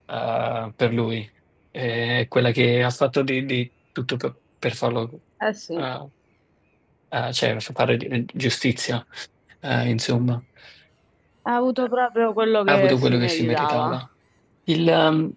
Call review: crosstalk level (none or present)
present